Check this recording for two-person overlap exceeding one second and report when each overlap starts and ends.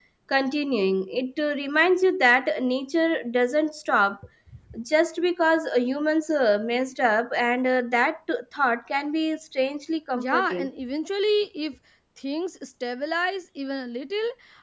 none

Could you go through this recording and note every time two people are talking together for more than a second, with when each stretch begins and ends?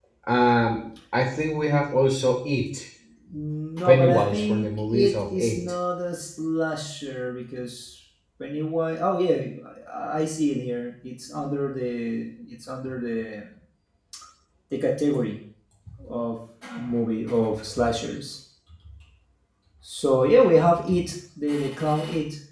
3.9-5.6

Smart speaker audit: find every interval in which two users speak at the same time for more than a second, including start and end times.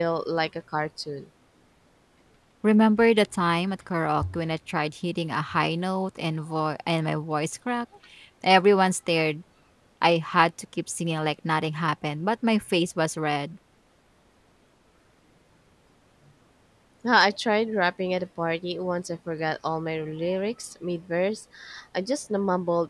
none

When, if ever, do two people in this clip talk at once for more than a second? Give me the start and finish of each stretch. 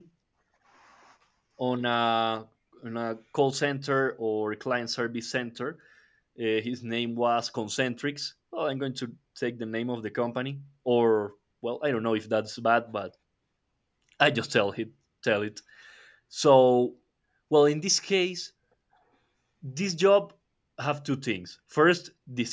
none

